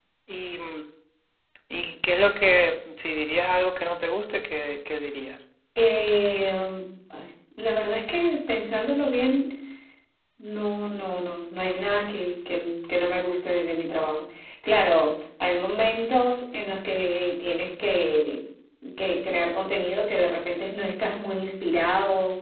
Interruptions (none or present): none